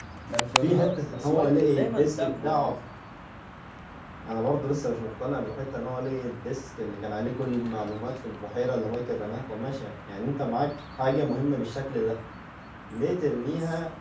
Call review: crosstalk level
present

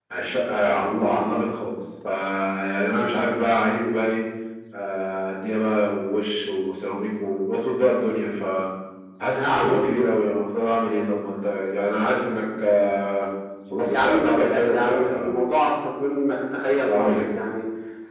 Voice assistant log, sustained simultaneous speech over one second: present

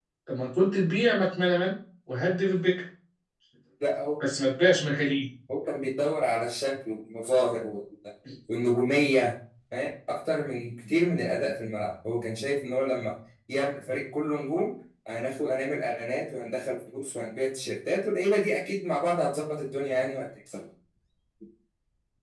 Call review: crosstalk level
none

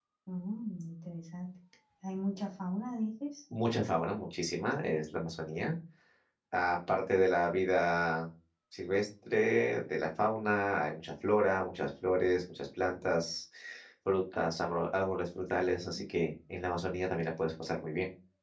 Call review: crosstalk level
none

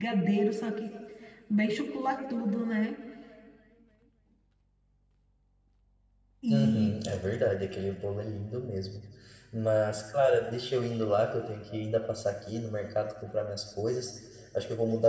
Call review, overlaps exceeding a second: none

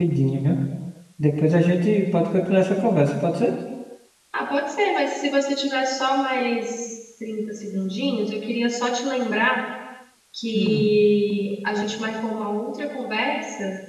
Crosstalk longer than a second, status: none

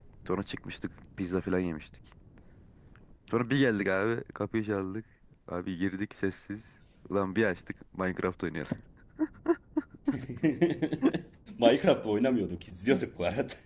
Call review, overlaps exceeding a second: none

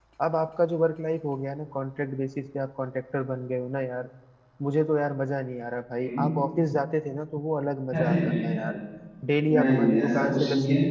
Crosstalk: present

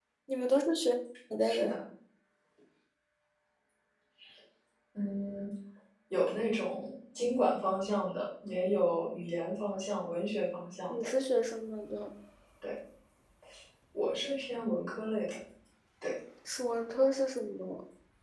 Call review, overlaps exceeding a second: none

